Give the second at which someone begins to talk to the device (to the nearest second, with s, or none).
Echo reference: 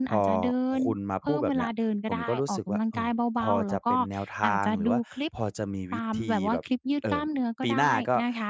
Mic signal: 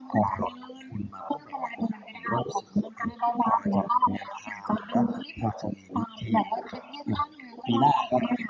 none